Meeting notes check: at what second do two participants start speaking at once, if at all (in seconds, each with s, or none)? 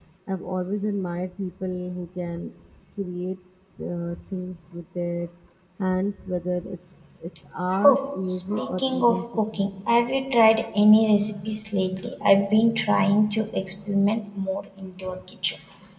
7.7 s